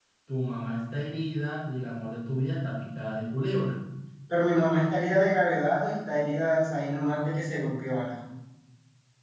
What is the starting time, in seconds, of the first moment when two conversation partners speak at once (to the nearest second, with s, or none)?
none